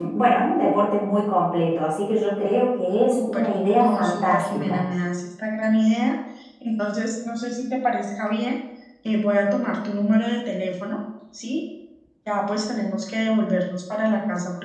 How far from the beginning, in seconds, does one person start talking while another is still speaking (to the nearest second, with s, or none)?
3 s